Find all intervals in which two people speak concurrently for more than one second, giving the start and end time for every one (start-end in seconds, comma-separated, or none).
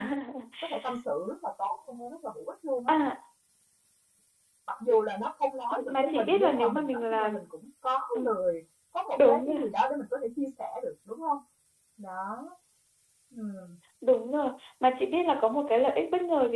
5.9-7.5